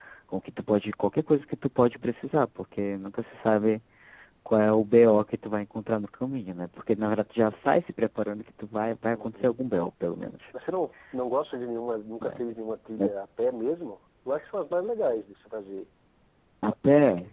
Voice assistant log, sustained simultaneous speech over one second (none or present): none